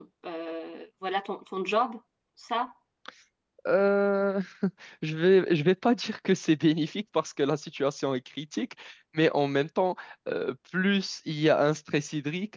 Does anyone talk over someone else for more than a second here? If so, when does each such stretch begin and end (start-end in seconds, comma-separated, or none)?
none